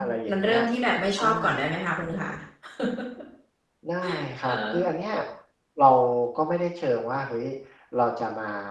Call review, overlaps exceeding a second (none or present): none